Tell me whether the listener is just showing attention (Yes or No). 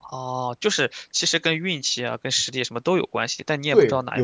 No